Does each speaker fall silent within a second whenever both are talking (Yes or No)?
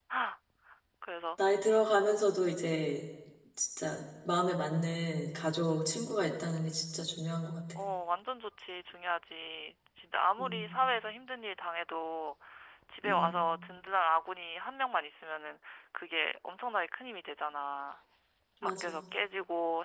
Yes